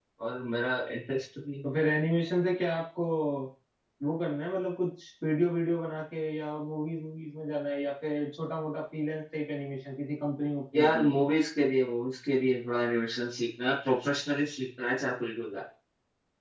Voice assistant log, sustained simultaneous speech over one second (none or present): none